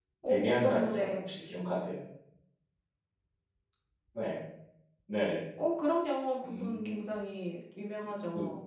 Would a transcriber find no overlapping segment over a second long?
No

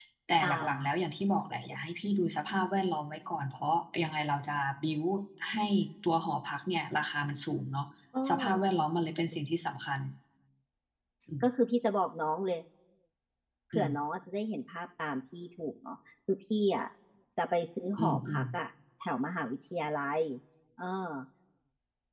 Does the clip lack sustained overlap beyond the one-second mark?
Yes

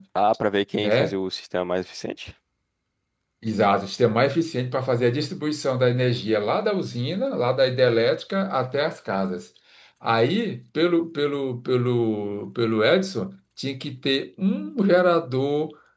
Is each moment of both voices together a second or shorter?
Yes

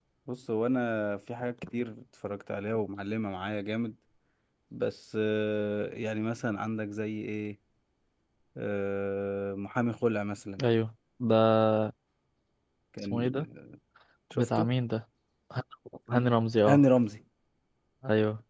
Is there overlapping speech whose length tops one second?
No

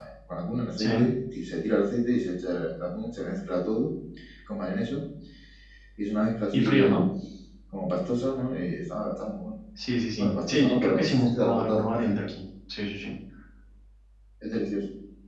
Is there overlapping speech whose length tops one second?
Yes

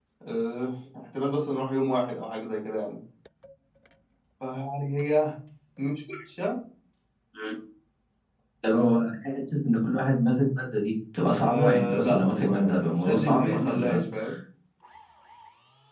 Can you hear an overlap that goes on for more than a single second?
Yes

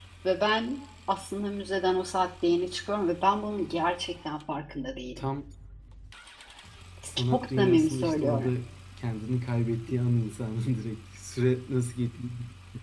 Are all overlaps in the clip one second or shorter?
No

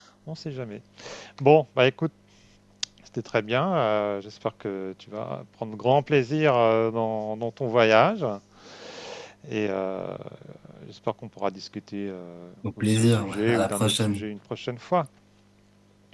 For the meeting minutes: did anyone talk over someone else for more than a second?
Yes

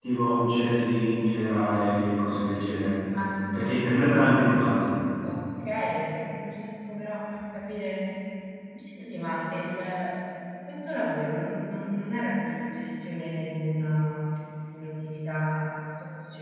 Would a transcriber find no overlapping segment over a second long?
Yes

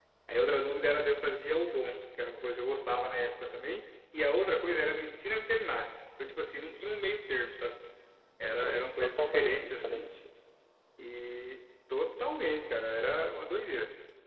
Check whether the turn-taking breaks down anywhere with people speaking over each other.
Yes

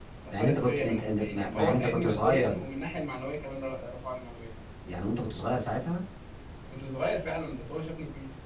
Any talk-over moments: Yes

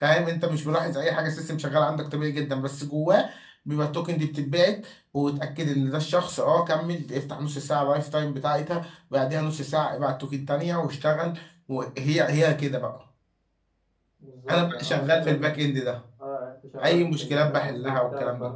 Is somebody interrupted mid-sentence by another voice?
Yes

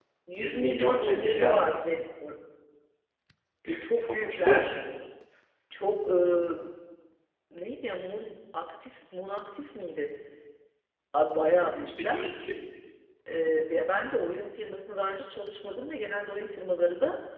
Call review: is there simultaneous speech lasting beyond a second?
Yes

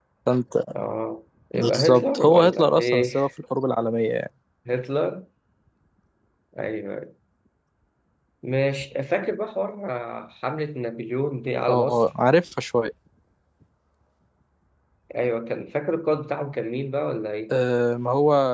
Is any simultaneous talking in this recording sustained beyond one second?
Yes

